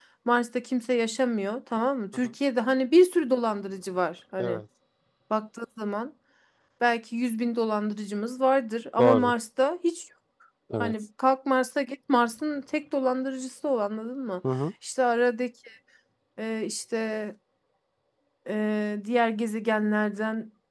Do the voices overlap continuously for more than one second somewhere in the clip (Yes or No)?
No